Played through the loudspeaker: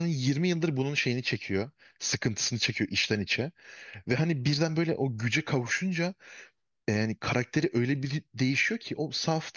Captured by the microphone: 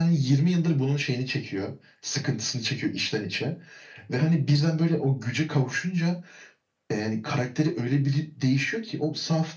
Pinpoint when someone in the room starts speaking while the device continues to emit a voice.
none

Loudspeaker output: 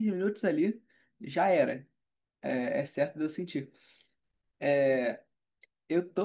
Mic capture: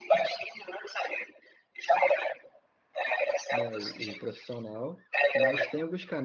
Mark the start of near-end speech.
3.5 s

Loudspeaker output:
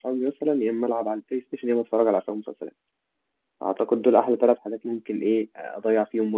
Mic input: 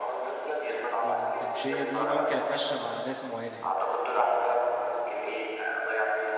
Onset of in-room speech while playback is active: 0.7 s

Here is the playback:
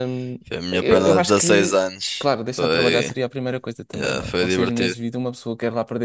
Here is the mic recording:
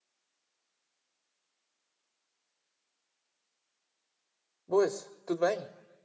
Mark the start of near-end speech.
4.7 s

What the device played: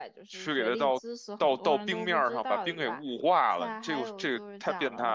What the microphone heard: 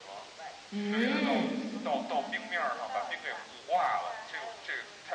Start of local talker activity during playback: 0.7 s

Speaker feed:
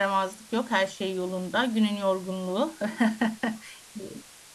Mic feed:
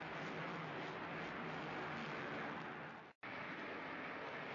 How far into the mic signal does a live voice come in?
none

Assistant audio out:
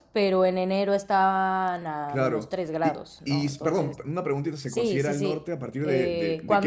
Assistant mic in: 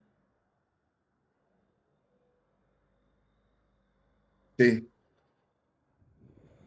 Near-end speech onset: 4.6 s

